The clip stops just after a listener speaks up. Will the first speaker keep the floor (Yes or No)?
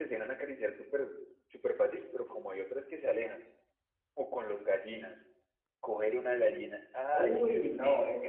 No